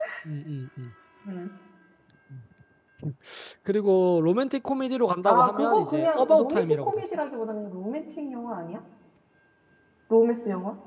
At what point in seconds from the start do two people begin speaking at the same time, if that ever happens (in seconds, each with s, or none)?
5.2 s